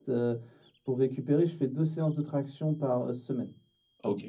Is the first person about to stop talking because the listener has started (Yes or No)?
Yes